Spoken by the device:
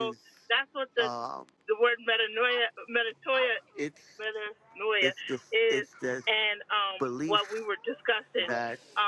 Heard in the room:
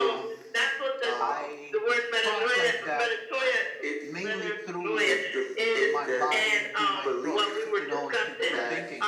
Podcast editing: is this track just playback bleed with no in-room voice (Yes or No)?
No